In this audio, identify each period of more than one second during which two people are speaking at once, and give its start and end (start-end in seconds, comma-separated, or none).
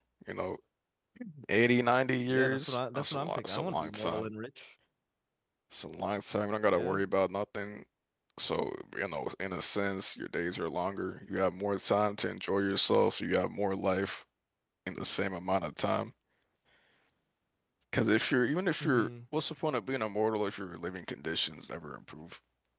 2.3-4.3